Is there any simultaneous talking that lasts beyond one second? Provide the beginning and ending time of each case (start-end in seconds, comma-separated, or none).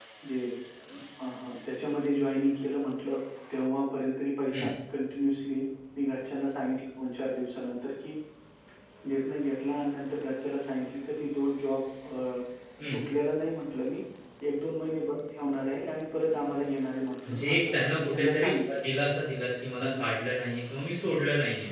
17.2-18.8